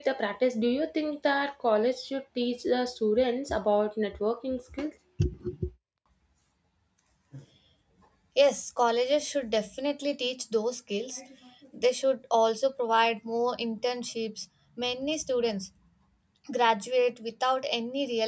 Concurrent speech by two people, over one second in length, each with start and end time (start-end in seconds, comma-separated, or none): none